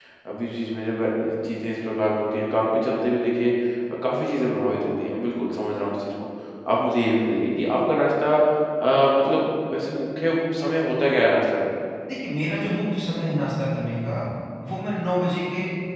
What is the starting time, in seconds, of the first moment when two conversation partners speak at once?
none

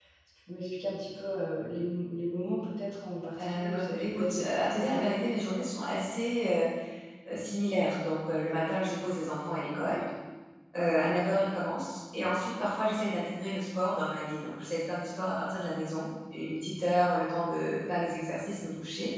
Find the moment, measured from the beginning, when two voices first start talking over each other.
3.4 s

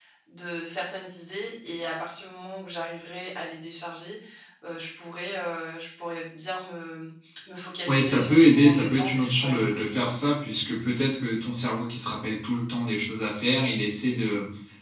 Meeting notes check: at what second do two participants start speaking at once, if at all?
7.9 s

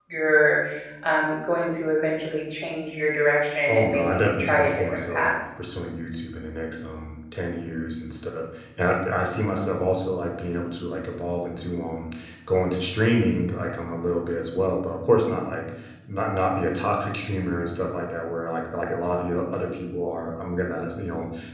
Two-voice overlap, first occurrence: 3.7 s

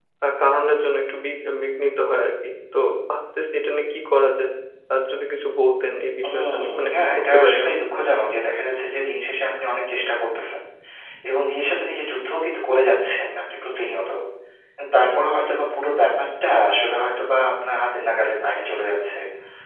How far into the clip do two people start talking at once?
6.2 s

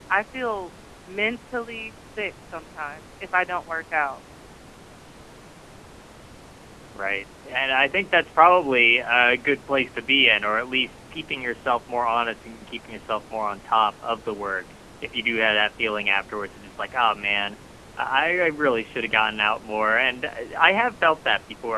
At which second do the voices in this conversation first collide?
none

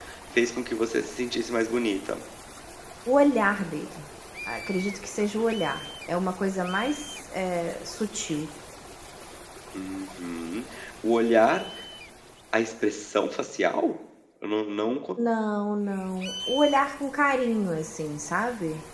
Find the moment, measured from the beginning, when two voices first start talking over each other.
none

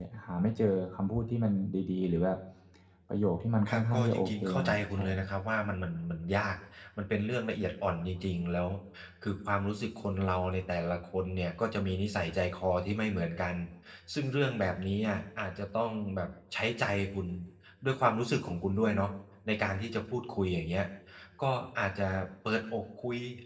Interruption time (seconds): 3.7 s

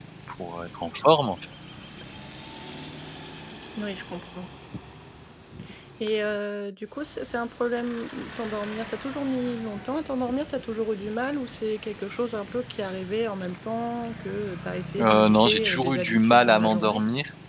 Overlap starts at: 15.0 s

